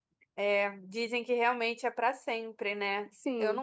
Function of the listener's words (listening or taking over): listening